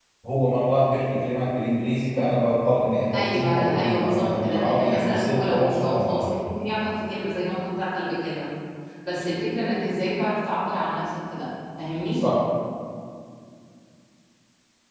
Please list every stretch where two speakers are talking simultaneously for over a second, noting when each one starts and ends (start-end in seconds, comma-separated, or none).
3.1-6.5